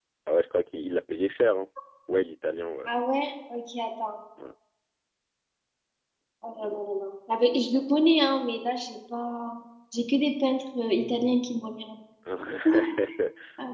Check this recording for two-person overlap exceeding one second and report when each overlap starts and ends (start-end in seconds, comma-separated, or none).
none